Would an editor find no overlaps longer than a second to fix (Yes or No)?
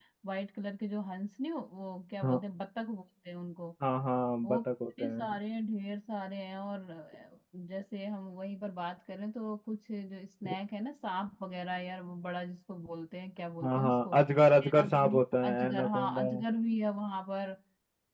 No